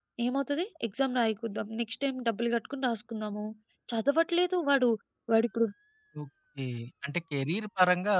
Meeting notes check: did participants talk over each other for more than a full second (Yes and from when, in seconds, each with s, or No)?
No